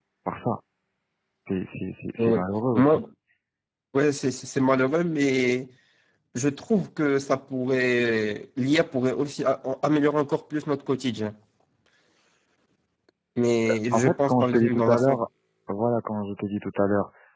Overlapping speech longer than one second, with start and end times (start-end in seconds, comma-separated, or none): 13.9-15.2